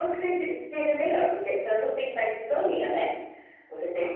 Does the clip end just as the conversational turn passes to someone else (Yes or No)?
No